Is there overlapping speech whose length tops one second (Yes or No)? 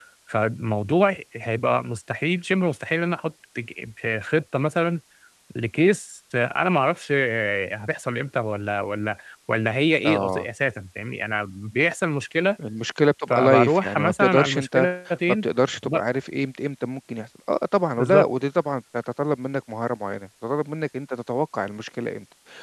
Yes